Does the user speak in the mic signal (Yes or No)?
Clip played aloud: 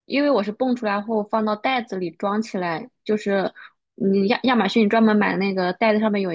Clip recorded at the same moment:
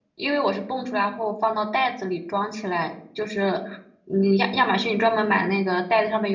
No